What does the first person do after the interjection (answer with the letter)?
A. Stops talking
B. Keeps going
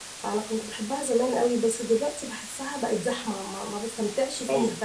A